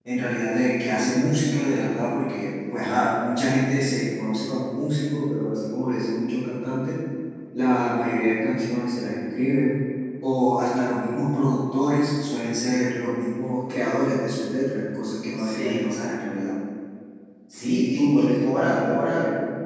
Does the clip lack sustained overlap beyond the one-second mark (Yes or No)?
No